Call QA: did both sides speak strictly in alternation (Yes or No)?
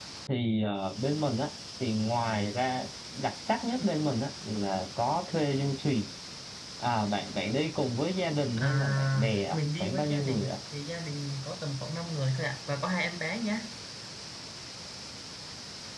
No